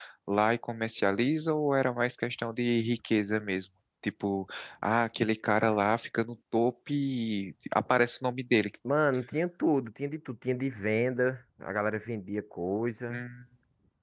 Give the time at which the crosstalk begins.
none

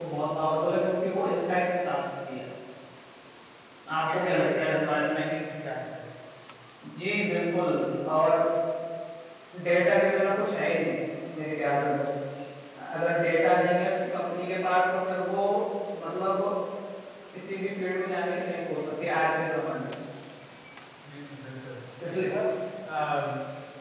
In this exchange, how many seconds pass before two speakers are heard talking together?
4.1 s

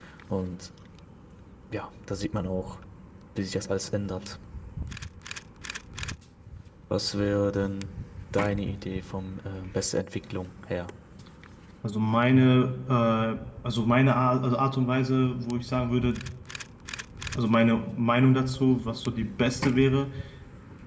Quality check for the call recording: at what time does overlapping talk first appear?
none

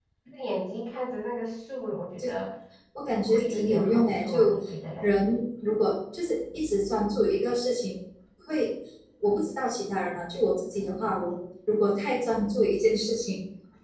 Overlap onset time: 3.0 s

